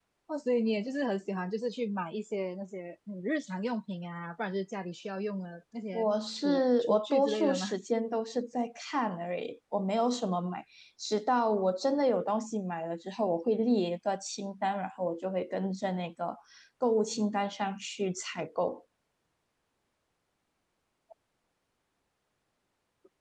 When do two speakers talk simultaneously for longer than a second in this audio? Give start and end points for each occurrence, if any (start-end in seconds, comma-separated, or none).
5.9-7.6